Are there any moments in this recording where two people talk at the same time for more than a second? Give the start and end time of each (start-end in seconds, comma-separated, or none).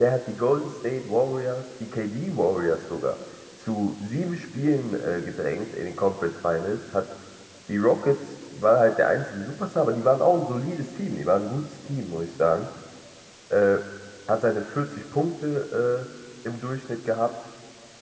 none